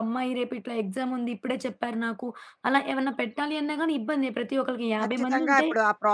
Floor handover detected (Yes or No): Yes